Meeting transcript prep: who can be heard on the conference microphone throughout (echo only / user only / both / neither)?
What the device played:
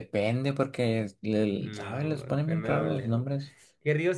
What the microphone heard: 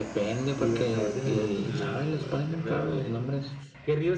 both